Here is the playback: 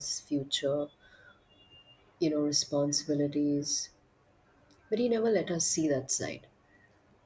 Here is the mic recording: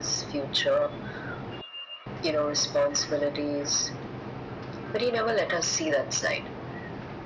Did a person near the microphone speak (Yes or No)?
No